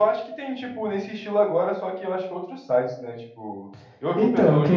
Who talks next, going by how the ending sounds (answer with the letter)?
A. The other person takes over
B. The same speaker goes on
A